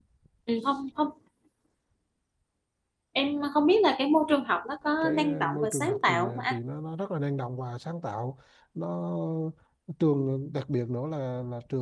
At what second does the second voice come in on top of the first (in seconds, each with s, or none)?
5.0 s